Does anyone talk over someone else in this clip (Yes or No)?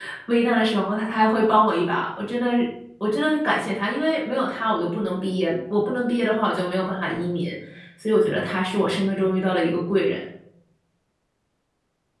No